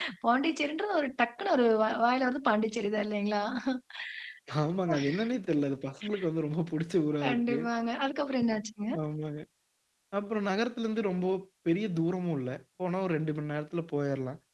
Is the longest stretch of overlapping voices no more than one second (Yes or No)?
Yes